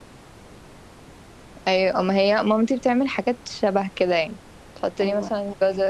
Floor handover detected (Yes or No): No